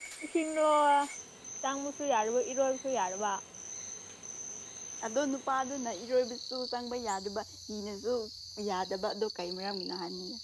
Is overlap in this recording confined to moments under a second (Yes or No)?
Yes